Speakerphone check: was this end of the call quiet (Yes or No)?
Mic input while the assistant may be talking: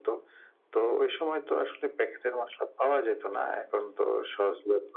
Yes